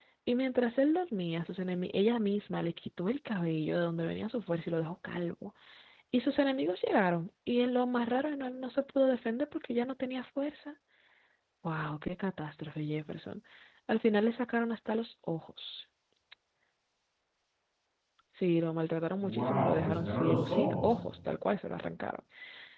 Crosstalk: present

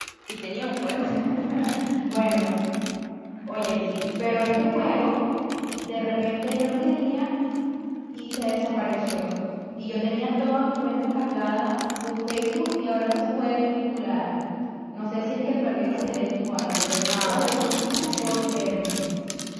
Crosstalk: present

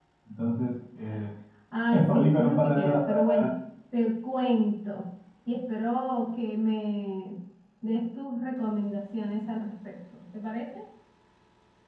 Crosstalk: present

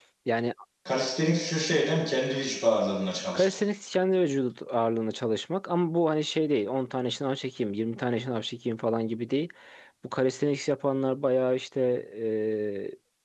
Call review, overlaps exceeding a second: none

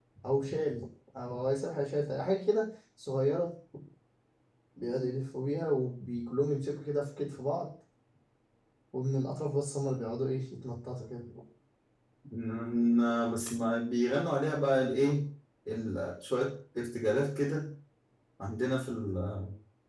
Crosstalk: none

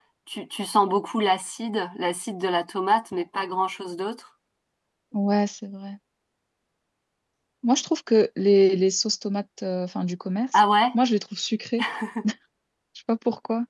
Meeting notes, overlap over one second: none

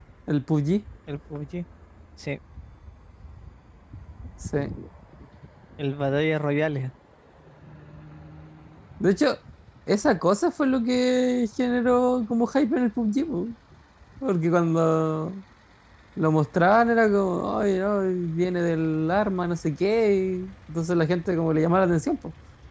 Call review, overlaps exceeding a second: none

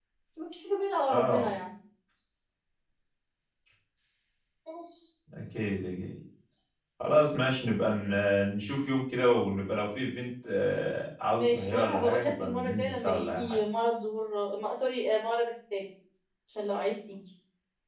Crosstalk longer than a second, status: present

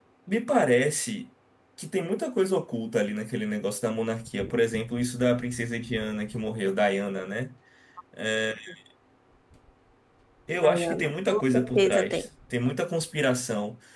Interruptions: present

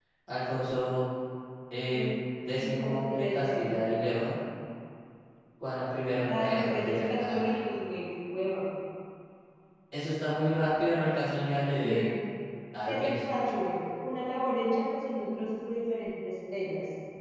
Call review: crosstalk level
present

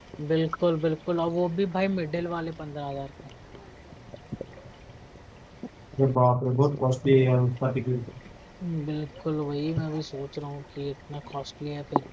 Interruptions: none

